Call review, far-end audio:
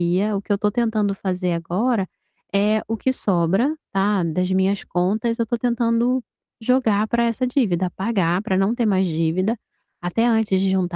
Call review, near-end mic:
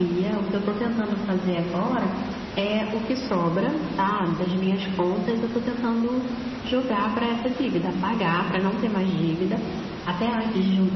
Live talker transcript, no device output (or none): none